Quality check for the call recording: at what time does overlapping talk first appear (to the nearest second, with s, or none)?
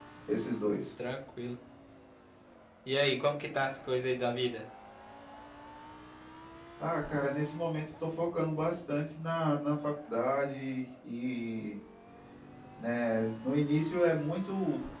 none